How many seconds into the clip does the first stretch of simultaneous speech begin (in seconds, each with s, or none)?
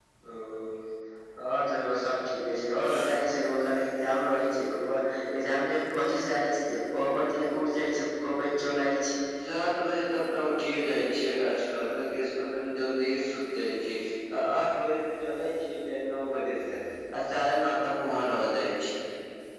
none